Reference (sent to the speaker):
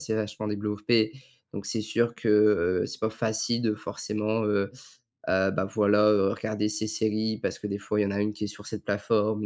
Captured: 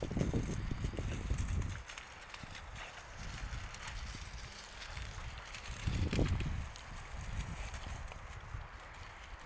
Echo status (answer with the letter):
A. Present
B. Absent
B